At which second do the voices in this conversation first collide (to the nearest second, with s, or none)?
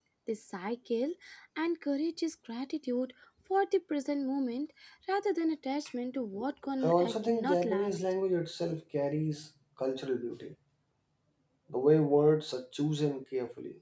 7 s